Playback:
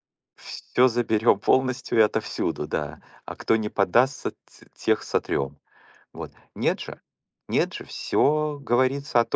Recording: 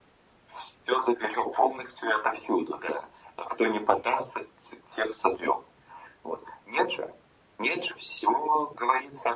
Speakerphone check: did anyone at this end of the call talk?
No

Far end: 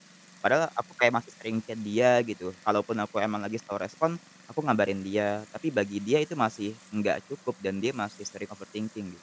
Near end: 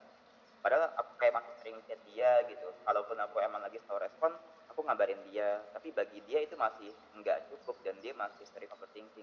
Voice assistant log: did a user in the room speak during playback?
No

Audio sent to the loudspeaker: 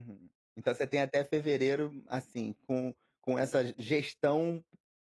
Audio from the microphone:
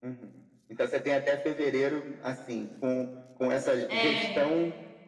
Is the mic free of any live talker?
No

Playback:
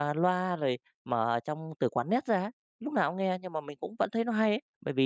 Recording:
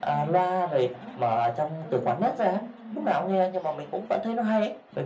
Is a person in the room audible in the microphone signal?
Yes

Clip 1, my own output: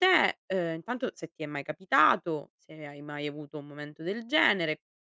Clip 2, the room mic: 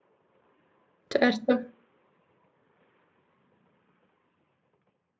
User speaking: Yes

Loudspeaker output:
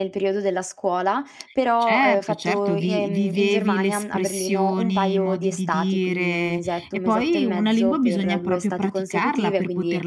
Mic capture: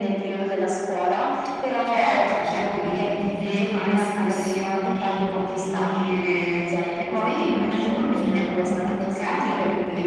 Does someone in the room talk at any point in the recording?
No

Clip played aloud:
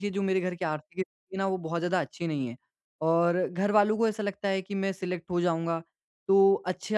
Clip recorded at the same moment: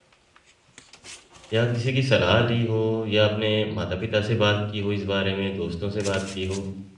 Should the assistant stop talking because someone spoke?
Yes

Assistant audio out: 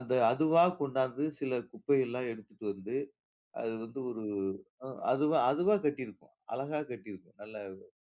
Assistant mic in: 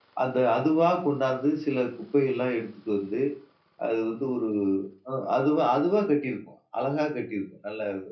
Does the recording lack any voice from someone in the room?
Yes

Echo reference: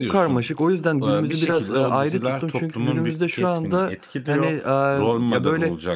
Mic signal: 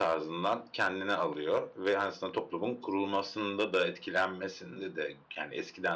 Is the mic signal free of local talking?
No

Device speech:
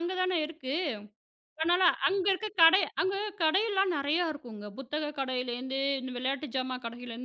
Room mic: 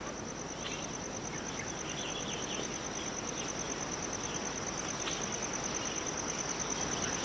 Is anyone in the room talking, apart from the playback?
No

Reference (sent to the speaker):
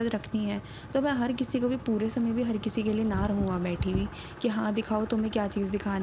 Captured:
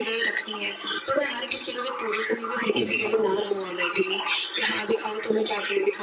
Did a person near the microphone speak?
Yes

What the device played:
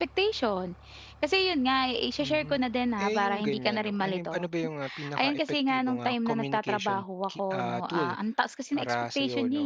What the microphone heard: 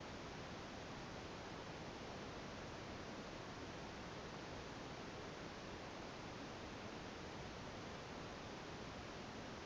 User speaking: No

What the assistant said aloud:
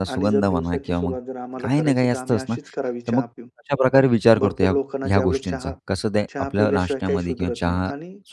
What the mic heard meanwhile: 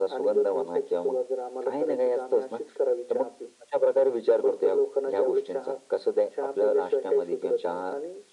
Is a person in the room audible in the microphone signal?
No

